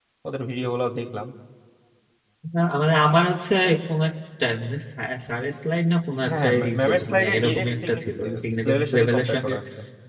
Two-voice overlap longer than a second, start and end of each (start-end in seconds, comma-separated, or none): 6.3-9.5